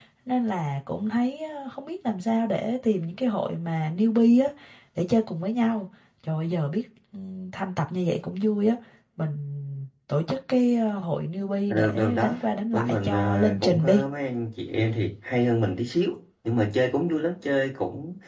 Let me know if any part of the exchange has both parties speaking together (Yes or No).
Yes